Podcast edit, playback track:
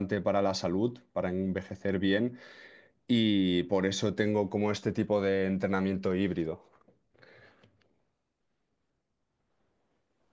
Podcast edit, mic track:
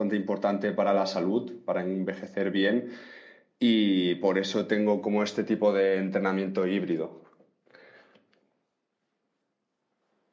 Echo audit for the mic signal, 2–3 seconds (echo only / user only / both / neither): echo only